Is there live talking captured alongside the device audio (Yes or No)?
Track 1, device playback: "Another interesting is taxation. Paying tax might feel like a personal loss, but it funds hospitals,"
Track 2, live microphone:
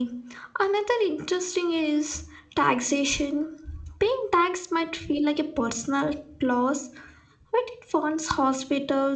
No